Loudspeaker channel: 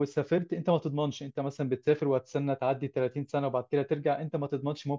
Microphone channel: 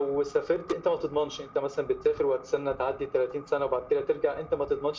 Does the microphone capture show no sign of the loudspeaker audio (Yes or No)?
No